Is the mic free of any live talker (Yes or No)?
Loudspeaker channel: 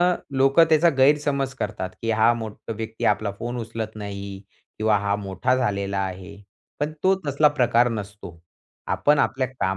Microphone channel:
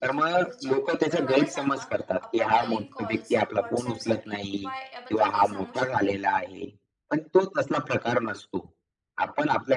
No